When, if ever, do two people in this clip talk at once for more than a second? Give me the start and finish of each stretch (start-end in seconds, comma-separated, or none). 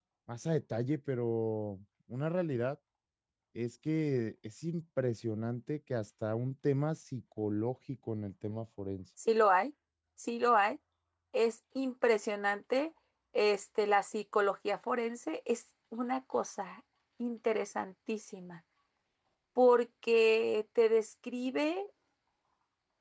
none